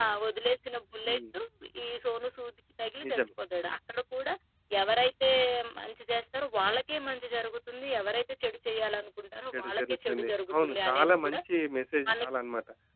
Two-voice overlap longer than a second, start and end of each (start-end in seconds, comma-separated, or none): 9.5-11.4